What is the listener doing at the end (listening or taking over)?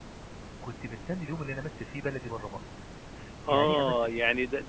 taking over